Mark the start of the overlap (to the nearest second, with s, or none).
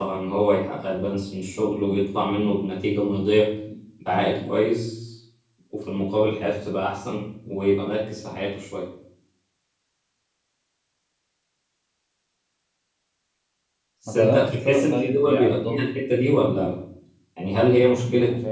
14 s